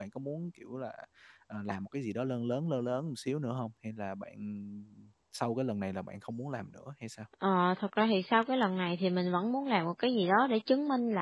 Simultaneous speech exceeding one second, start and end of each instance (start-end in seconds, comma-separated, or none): none